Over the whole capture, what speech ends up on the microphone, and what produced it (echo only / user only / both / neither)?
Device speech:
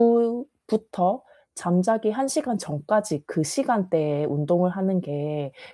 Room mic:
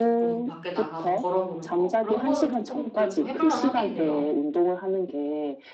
both